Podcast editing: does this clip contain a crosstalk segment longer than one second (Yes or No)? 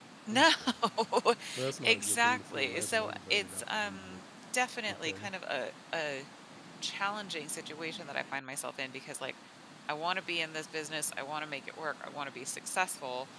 Yes